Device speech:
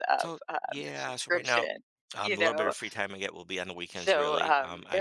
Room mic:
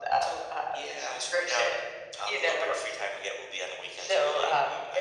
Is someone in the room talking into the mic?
No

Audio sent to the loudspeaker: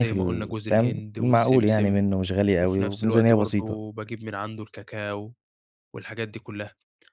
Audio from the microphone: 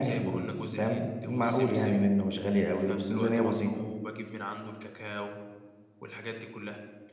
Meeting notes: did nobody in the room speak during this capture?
Yes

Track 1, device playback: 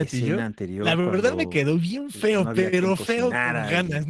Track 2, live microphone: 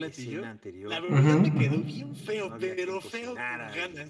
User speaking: Yes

